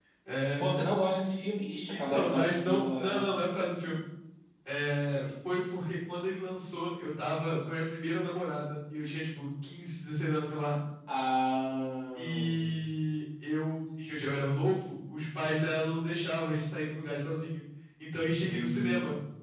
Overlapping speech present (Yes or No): Yes